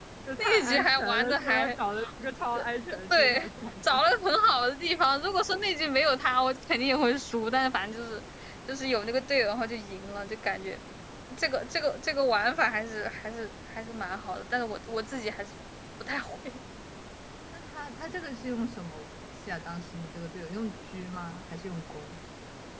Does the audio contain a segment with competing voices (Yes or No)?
Yes